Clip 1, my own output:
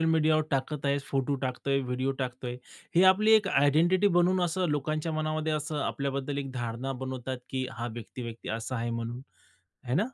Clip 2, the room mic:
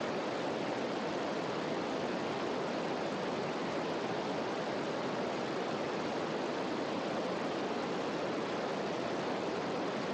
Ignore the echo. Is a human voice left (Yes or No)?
No